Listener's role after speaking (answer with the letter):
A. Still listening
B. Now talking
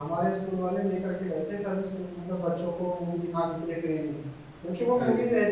A